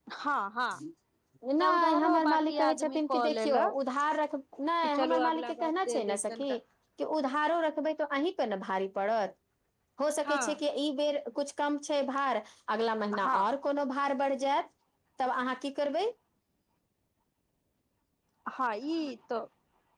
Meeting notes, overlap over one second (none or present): present